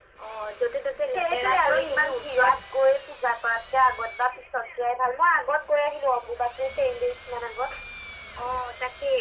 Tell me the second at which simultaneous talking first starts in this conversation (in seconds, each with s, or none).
1.1 s